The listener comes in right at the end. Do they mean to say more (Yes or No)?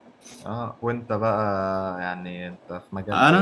Yes